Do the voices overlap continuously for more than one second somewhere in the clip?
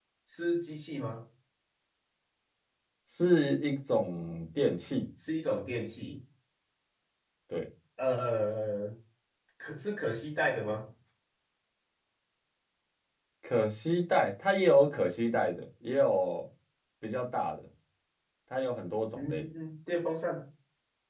No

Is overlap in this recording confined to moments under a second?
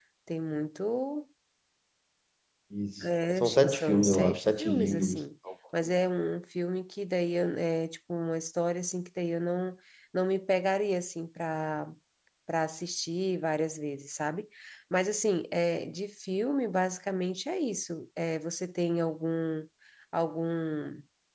No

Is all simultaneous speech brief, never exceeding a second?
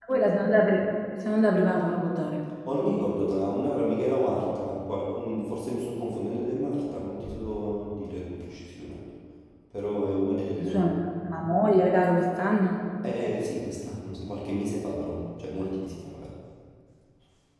Yes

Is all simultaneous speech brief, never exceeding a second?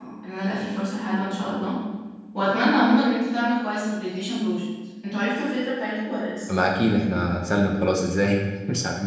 Yes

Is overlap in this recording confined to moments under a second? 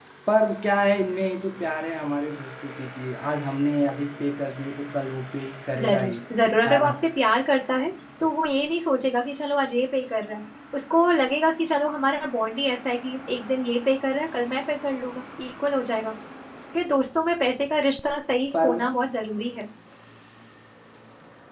Yes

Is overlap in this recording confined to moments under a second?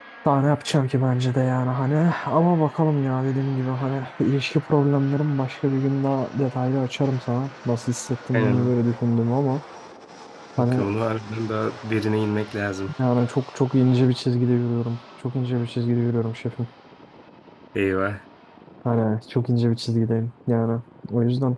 Yes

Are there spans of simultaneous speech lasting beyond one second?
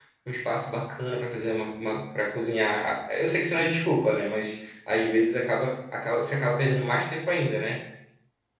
No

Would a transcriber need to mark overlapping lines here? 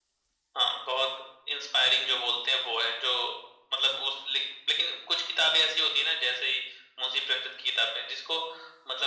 No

